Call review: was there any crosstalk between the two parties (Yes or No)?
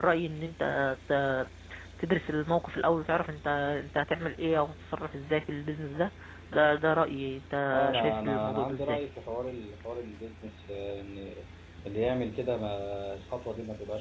Yes